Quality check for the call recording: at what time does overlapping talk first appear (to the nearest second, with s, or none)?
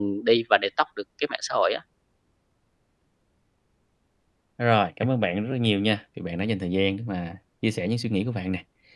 none